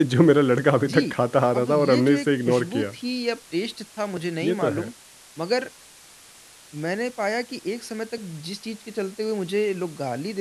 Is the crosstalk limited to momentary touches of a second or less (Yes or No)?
No